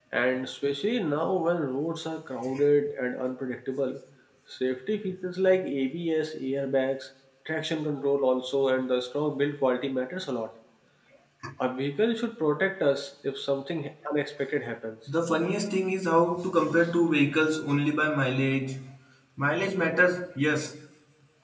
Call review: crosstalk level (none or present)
none